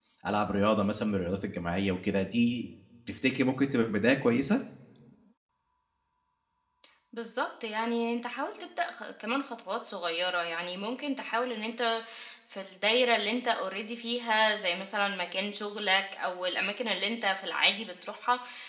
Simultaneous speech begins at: none

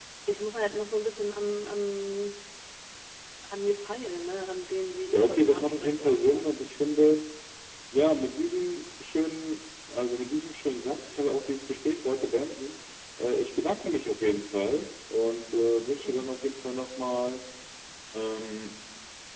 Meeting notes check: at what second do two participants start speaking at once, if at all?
5.1 s

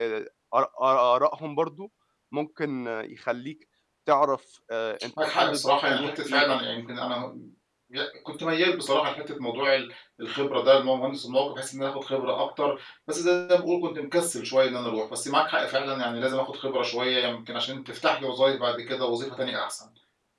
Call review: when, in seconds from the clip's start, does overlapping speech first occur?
5.2 s

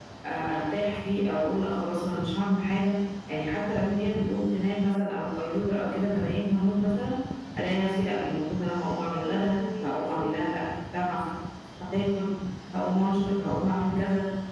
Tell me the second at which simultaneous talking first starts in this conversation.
9.1 s

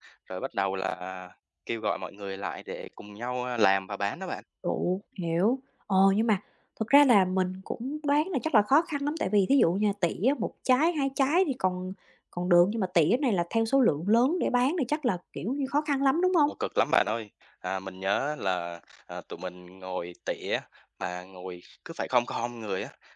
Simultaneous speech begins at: none

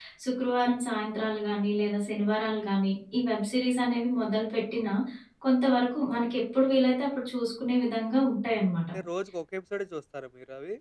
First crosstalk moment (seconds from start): none

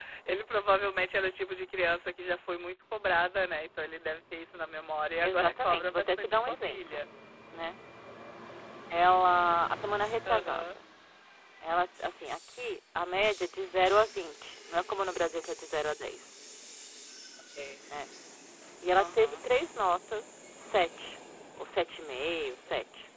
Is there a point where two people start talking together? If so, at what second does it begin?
5.2 s

